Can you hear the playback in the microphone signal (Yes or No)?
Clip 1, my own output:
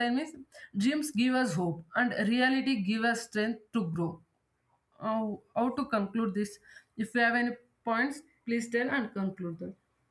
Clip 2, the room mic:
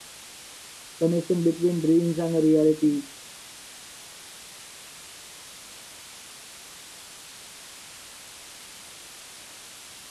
No